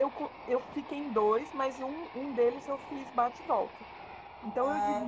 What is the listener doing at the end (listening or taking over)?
listening